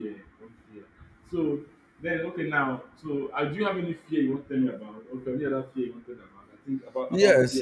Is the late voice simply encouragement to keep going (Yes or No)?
No